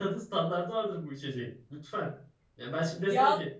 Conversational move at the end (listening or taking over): listening